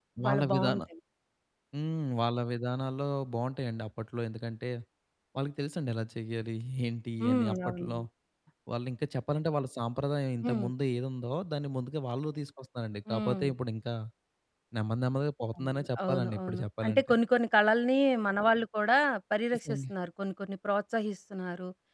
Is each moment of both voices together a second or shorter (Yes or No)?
No